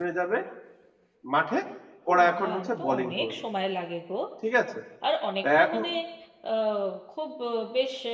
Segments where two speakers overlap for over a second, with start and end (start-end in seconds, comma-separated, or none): 2.1-3.4